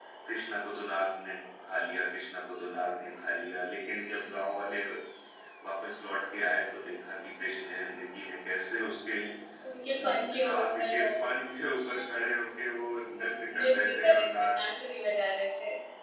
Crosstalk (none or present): present